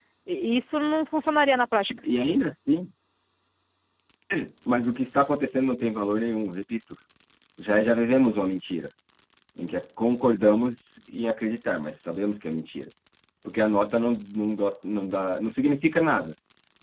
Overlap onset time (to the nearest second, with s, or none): none